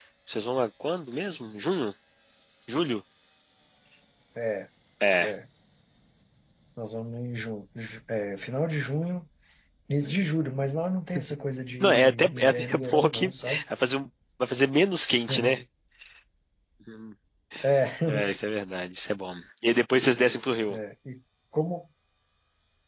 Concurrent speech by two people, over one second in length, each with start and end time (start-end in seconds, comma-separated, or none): 11.8-13.6